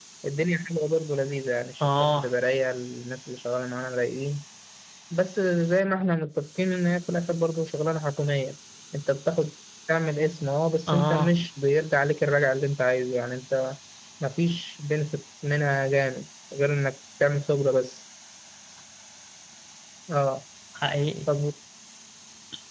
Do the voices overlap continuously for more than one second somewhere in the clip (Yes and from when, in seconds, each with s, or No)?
No